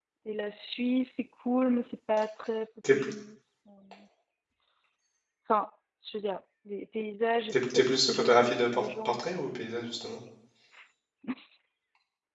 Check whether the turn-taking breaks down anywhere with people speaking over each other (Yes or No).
Yes